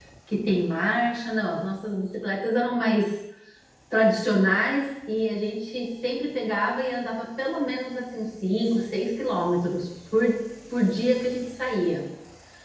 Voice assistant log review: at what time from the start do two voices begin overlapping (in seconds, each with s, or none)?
none